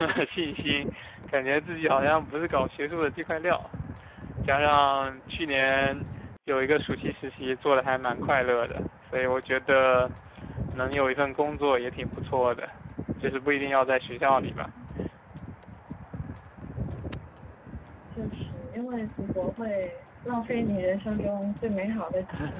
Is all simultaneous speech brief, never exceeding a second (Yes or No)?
Yes